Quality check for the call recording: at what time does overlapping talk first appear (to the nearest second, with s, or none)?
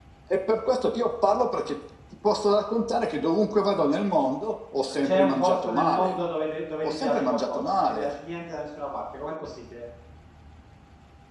5 s